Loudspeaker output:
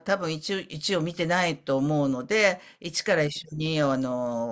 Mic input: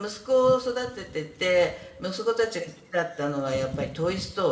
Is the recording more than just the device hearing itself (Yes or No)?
Yes